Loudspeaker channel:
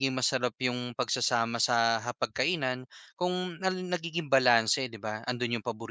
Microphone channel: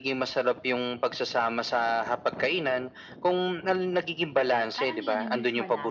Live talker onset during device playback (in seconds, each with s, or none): 4.8 s